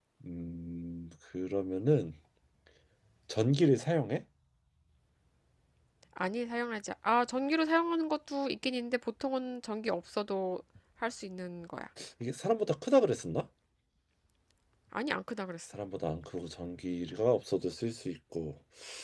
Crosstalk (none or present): none